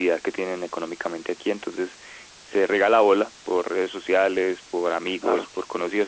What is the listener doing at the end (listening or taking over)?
listening